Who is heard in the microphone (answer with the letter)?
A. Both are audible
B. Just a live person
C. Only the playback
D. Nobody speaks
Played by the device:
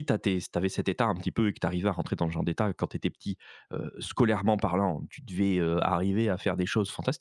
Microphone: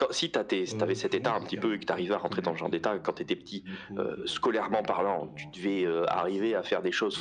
A